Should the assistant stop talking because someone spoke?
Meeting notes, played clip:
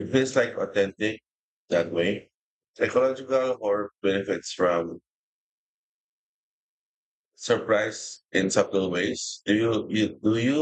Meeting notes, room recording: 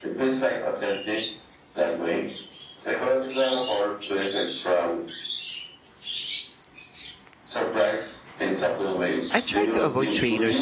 Yes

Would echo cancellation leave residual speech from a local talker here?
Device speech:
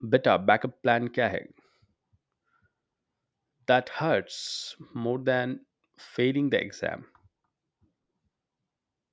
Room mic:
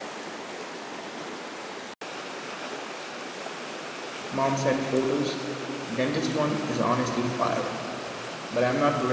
Yes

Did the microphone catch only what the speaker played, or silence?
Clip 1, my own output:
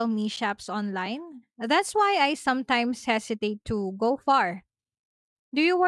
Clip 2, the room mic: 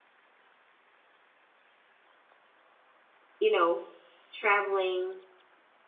No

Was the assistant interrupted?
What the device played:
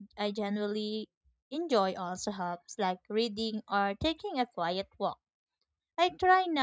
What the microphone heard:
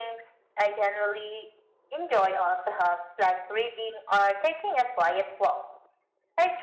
No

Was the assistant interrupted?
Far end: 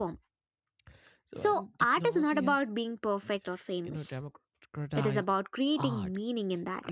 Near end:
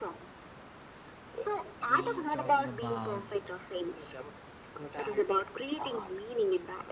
Yes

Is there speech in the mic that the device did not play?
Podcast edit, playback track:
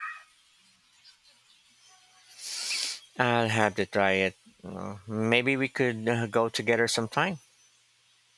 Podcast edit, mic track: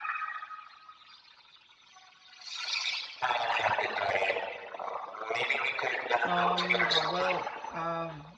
Yes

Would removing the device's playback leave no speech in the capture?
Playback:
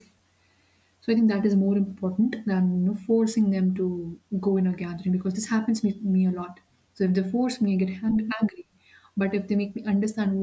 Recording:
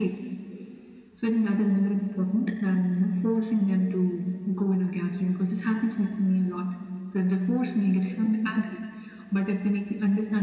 Yes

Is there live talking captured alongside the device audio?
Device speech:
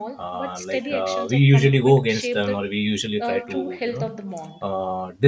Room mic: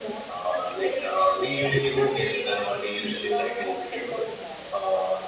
No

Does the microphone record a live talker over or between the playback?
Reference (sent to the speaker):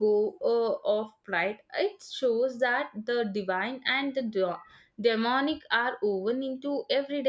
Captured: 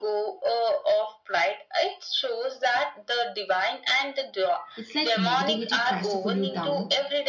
Yes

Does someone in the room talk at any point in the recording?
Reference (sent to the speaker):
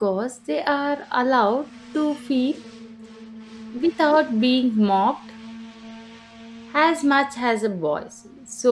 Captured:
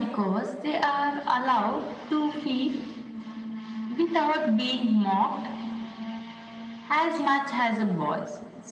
No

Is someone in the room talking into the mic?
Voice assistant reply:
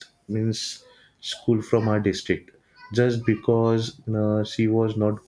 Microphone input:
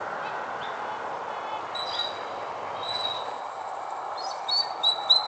No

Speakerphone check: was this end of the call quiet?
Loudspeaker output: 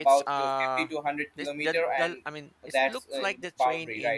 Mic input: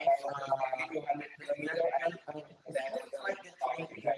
Yes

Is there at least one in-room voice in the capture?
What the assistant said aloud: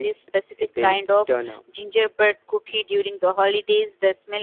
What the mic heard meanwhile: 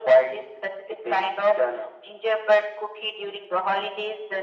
No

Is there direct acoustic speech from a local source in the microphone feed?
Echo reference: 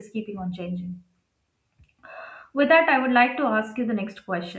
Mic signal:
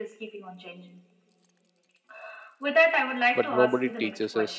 Yes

